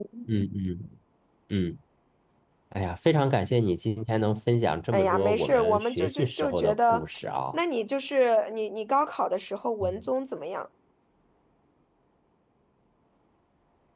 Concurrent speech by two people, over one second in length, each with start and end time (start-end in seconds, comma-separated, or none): 4.9-7.0